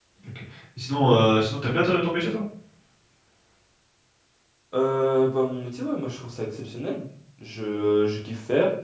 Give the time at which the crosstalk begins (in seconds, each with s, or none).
none